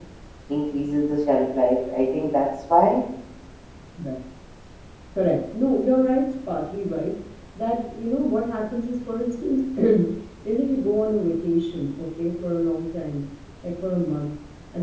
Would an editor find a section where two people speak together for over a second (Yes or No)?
No